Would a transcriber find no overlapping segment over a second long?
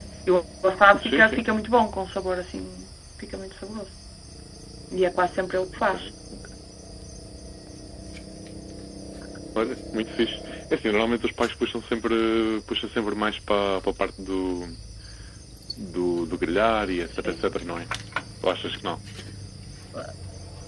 Yes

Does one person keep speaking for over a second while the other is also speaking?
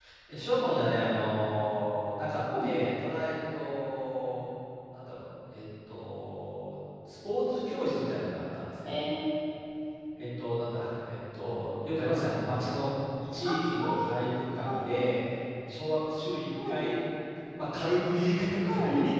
No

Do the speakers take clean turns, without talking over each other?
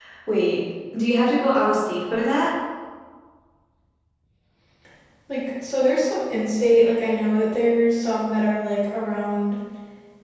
Yes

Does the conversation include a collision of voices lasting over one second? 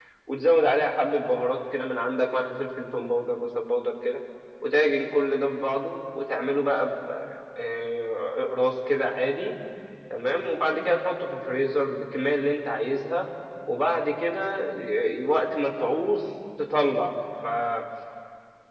No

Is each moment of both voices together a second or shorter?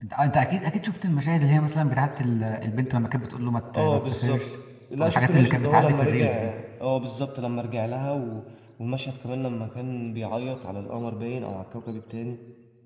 No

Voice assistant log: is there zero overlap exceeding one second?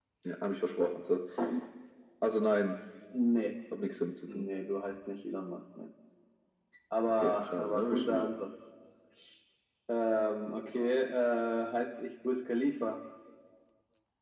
No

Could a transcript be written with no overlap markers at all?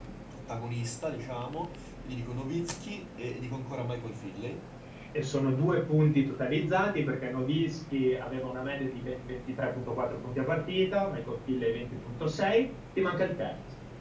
Yes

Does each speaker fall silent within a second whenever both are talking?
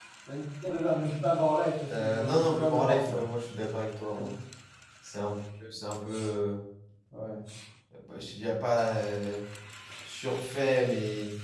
No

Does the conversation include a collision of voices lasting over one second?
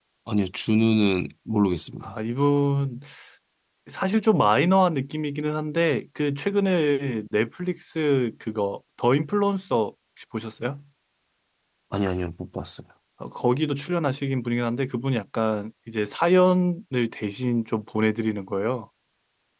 No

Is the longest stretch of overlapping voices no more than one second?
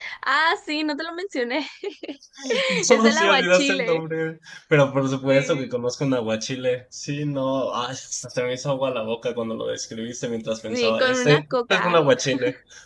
No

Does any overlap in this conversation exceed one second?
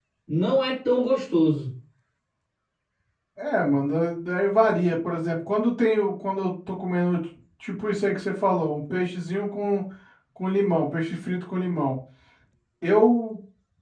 No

